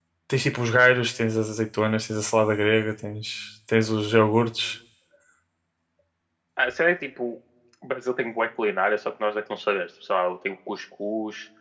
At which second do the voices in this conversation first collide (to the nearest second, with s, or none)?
none